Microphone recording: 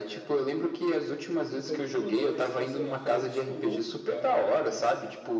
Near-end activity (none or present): present